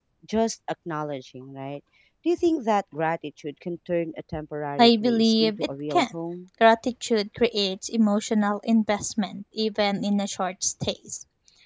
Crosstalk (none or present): present